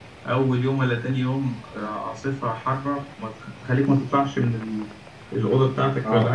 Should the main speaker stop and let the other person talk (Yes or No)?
Yes